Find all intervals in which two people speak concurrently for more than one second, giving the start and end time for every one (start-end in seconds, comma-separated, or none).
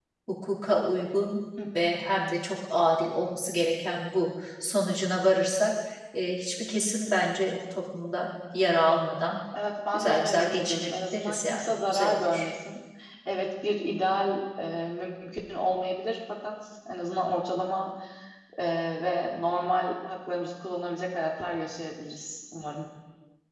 9.9-12.4